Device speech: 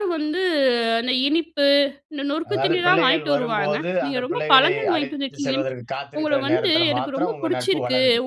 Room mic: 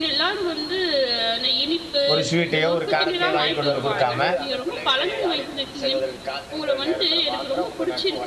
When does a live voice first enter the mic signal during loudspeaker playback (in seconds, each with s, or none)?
2.1 s